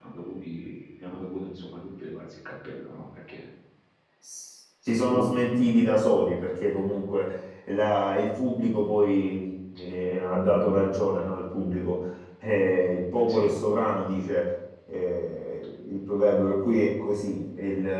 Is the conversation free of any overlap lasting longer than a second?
Yes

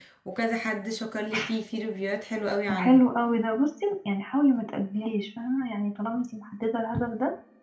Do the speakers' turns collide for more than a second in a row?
No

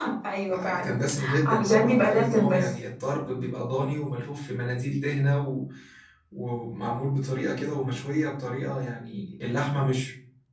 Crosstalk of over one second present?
Yes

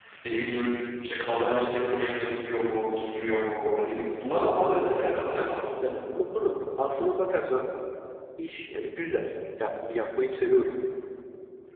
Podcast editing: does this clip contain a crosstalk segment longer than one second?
No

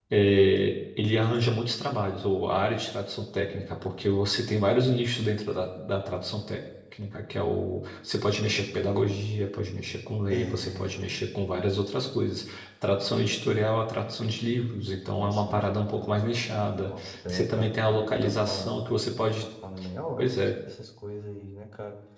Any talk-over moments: Yes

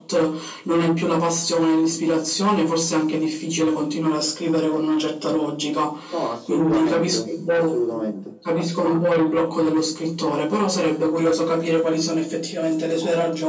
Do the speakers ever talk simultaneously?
Yes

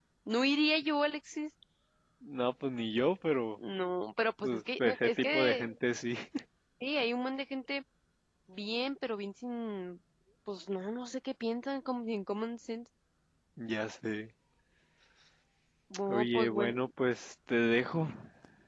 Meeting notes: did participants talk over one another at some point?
Yes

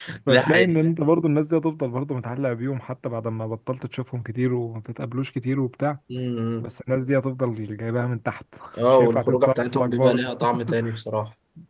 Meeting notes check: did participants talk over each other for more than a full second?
Yes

